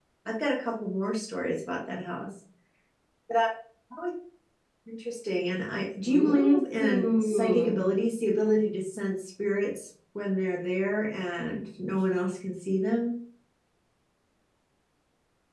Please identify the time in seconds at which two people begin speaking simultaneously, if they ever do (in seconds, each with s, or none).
6.0 s